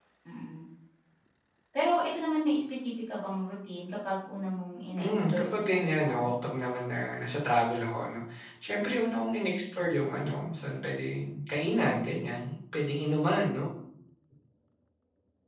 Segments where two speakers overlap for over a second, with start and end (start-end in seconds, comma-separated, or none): 5.0-6.2